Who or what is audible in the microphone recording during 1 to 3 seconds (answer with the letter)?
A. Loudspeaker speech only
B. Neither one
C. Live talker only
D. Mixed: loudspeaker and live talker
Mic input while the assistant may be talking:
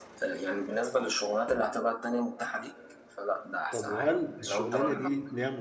A